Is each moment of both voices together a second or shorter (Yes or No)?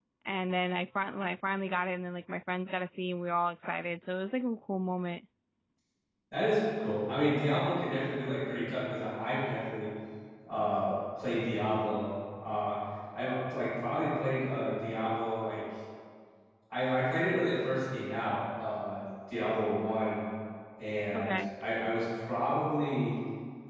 Yes